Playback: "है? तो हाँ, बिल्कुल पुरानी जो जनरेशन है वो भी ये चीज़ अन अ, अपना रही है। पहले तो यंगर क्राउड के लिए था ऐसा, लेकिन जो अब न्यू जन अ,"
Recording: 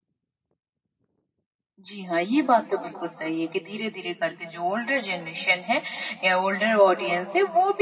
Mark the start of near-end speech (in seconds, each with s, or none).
1.9 s